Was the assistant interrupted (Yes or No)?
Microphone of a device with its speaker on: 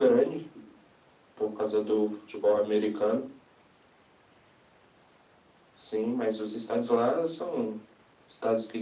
No